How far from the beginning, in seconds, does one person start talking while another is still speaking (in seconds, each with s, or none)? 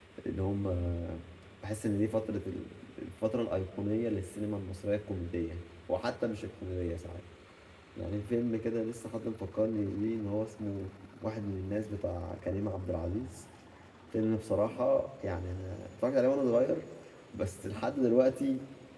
none